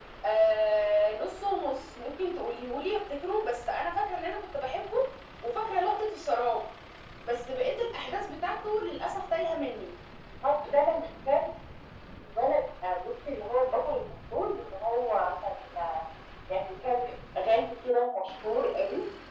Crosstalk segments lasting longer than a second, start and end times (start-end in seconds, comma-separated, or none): none